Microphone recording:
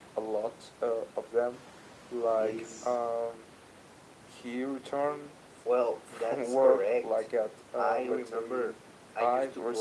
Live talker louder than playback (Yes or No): No